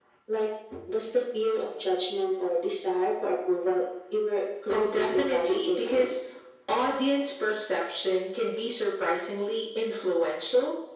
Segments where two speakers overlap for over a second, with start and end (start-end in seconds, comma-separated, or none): 4.7-6.2